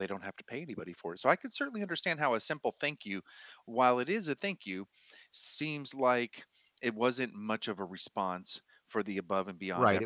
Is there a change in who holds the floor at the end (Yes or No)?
Yes